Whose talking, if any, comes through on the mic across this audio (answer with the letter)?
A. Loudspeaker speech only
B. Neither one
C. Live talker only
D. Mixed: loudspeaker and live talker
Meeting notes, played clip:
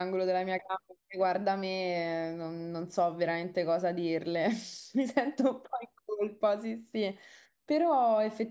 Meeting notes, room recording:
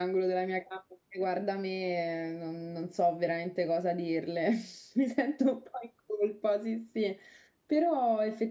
A